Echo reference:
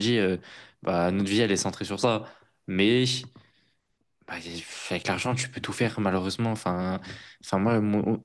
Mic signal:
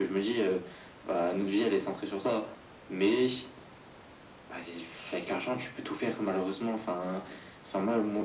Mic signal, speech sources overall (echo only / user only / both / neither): echo only